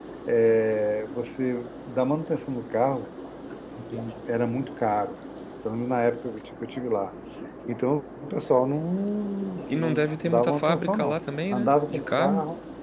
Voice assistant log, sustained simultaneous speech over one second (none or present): present